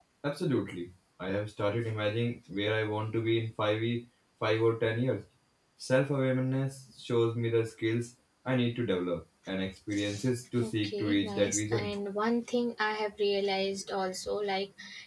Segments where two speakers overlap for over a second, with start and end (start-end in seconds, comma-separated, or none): 10.6-11.9